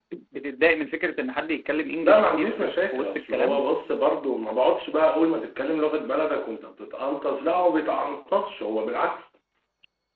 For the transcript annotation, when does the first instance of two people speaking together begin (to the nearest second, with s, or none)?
2 s